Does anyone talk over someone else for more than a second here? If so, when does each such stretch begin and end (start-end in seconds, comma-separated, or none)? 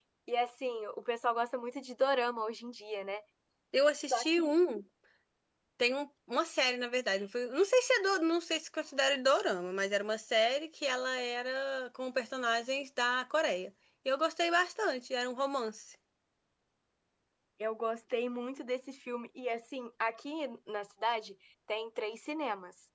none